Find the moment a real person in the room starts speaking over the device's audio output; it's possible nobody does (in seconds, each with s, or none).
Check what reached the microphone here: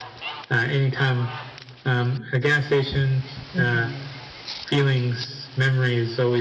3.5 s